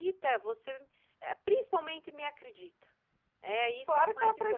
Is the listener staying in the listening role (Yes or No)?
No